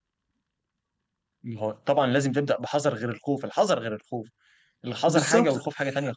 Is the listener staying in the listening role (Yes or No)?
No